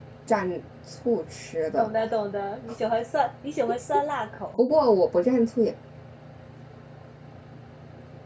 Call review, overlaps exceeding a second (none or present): none